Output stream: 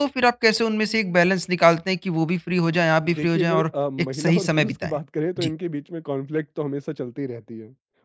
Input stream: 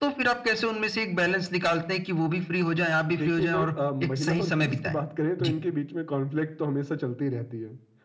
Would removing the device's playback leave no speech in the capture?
Yes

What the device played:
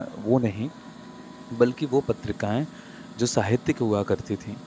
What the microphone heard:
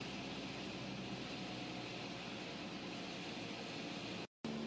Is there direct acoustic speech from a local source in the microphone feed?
No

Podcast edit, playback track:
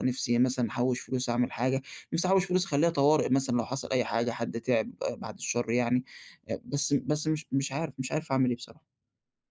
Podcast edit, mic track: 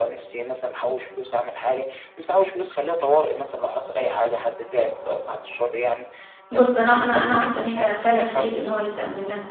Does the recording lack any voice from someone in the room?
No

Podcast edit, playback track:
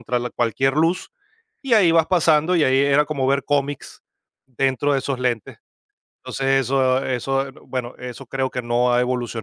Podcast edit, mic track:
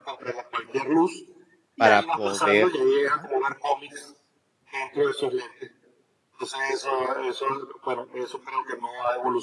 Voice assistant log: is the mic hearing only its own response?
No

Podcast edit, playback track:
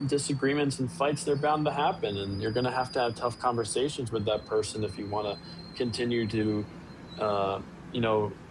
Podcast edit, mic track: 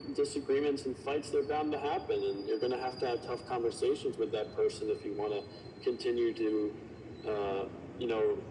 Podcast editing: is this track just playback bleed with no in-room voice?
Yes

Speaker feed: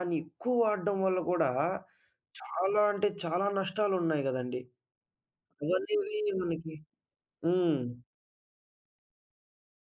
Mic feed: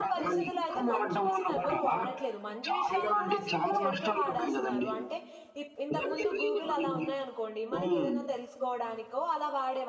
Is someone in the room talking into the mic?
Yes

